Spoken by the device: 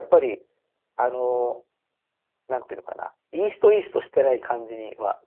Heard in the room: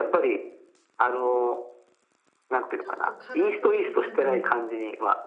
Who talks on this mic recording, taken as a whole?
both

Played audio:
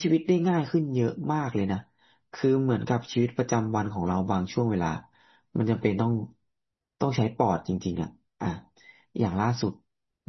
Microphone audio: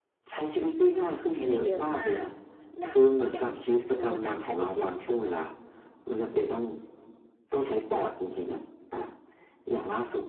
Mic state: both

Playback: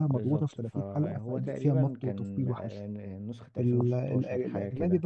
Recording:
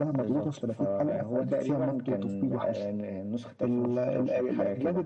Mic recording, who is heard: echo only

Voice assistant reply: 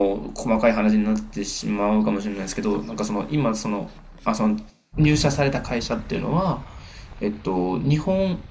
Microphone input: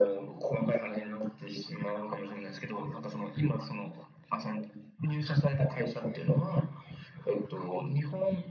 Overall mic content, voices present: echo only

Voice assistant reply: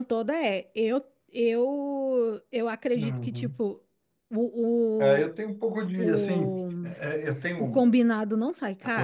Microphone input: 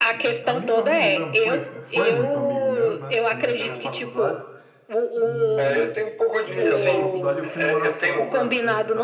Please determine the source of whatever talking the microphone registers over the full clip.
both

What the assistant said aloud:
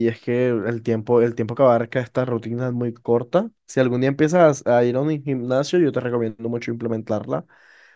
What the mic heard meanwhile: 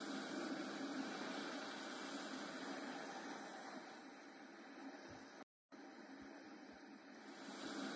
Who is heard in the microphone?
neither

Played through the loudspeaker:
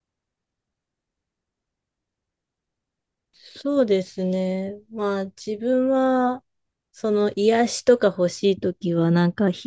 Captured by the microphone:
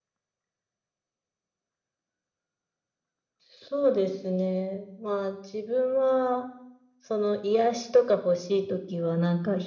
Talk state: echo only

